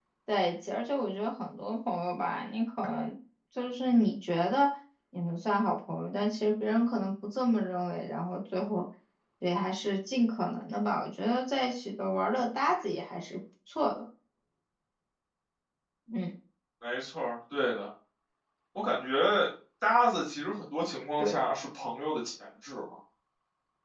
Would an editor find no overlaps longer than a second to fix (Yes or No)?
Yes